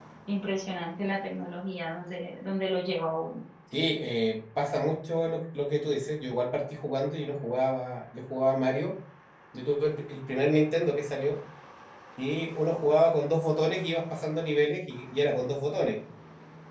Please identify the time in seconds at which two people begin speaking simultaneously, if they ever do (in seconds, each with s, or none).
none